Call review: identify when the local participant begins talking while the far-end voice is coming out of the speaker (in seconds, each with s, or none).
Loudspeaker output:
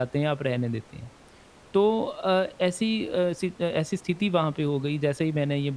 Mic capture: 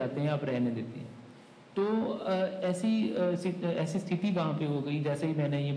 none